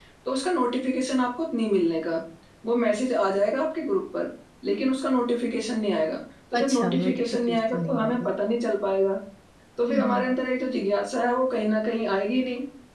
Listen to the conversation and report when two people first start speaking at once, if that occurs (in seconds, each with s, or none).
6.6 s